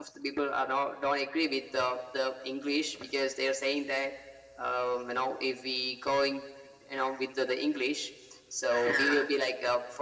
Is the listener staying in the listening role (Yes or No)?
Yes